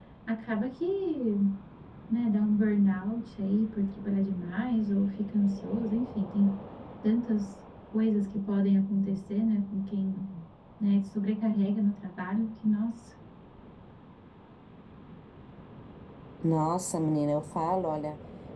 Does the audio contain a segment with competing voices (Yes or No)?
No